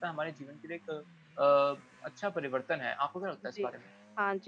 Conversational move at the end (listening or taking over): taking over